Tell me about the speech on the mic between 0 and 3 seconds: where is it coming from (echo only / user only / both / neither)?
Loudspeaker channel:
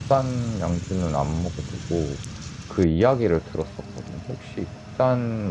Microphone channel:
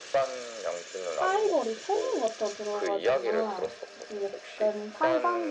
both